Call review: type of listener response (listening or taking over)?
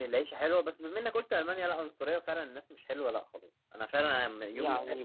taking over